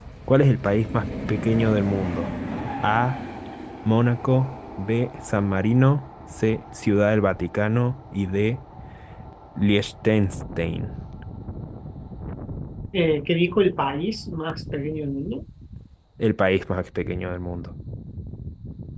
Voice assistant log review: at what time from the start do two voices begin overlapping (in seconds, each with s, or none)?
none